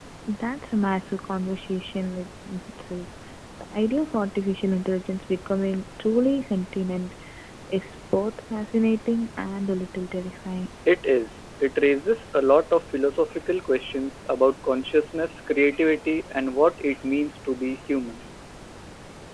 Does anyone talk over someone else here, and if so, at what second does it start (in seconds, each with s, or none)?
none